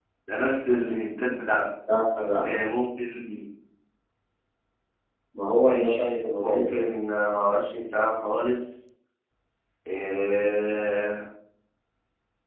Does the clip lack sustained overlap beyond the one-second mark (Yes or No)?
No